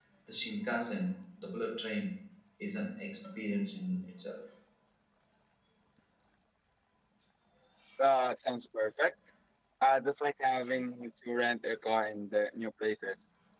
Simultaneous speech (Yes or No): No